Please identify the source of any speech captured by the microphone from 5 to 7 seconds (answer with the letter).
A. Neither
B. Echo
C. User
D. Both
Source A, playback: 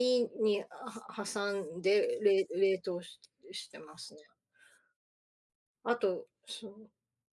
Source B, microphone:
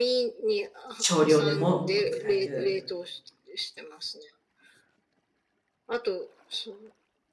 B